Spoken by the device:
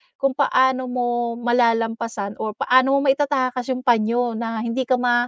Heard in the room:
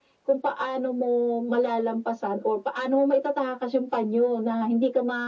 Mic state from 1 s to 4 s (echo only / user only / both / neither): echo only